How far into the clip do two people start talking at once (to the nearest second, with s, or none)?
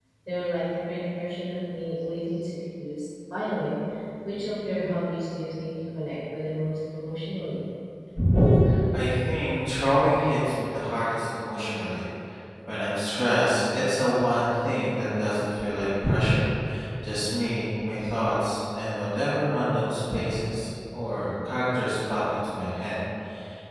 none